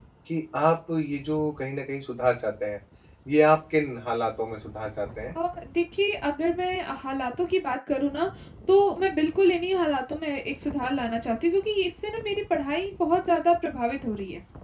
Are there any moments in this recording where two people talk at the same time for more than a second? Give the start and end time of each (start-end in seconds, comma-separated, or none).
none